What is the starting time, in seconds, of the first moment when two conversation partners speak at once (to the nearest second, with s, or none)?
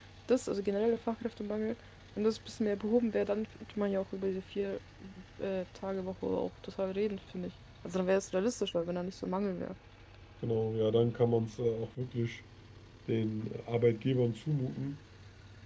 none